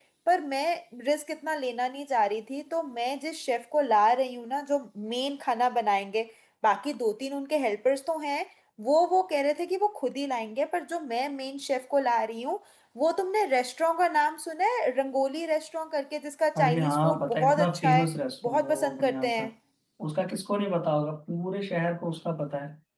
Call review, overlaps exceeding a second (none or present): present